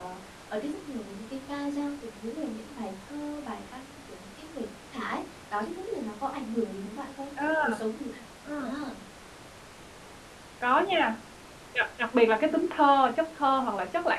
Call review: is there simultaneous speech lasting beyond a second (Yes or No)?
No